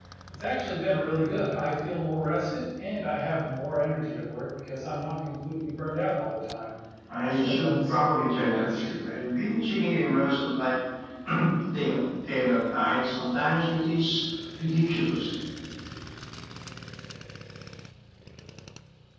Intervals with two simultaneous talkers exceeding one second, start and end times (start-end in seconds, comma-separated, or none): 7.2-8.9